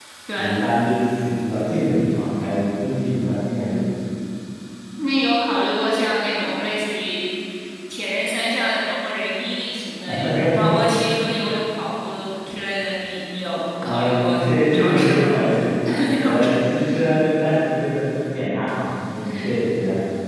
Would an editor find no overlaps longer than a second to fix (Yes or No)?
No